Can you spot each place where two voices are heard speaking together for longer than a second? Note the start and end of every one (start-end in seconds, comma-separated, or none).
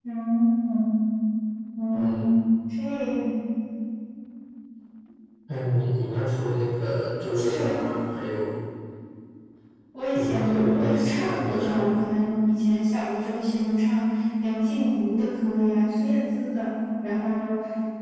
10.1-11.9